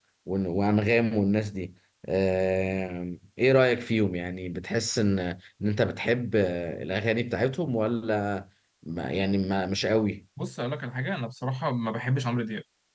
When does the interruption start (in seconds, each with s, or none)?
none